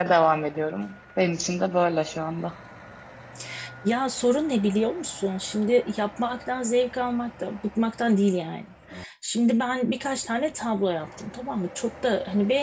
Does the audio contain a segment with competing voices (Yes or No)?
No